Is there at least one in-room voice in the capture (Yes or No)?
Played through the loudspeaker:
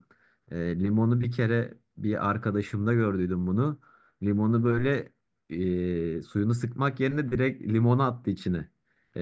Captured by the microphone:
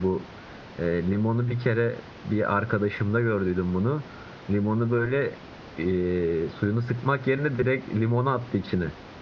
No